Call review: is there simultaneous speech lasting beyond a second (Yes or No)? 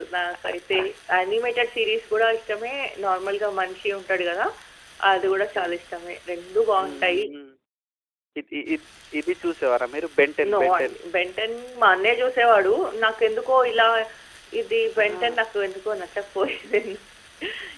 No